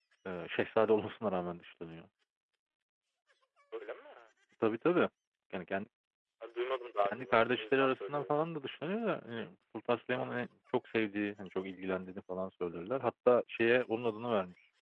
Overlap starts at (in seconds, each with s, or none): 7.1 s